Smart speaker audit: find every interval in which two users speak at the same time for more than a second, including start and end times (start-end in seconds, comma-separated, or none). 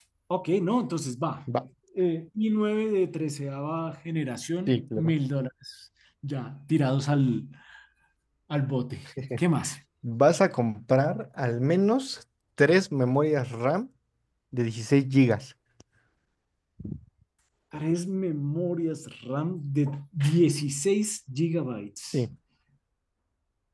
none